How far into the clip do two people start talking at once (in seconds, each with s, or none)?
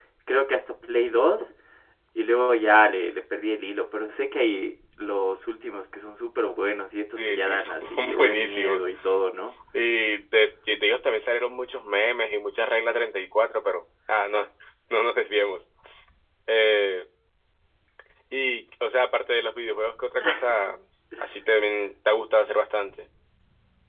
7.3 s